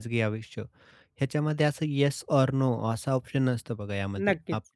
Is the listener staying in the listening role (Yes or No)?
Yes